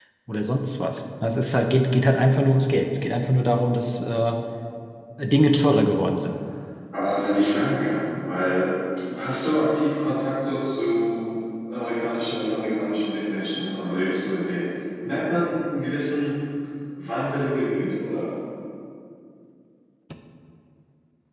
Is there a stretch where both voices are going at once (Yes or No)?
No